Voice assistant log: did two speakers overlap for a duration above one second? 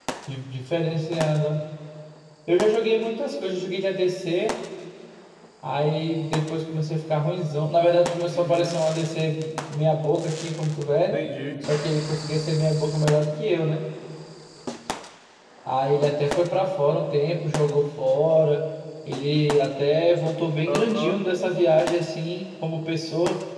No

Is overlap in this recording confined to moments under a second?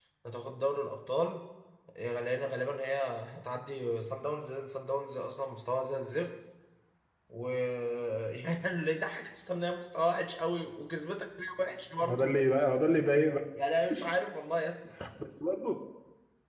Yes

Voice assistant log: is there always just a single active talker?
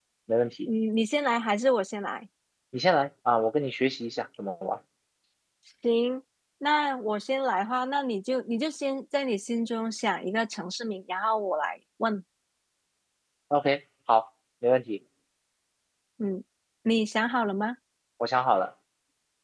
Yes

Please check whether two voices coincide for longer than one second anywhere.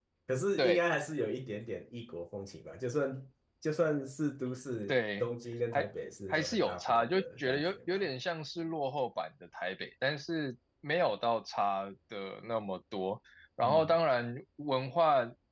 Yes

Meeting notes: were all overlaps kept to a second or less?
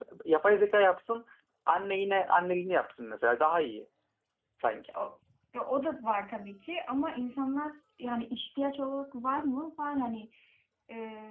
Yes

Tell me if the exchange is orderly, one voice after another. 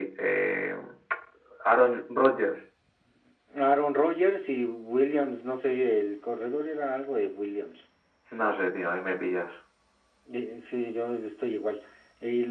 Yes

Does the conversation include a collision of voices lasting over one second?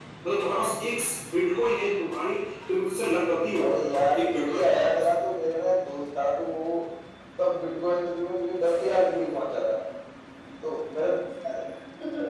Yes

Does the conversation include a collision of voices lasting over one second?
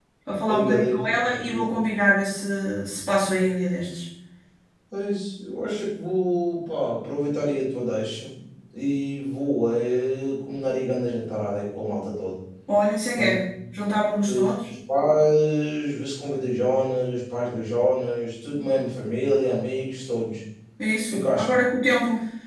Yes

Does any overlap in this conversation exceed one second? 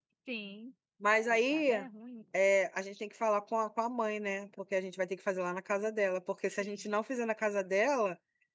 No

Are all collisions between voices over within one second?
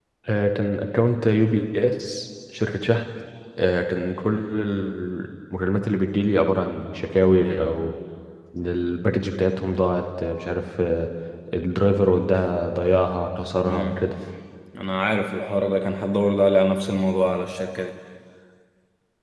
Yes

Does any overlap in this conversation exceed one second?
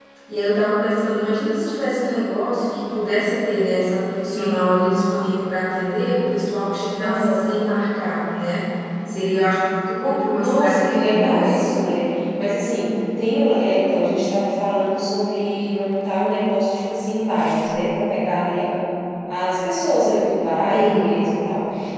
Yes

